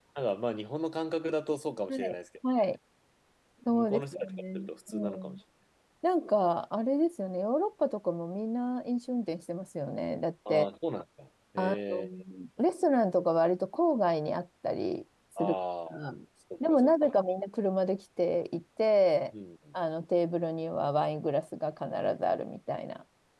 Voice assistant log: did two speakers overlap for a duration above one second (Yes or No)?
Yes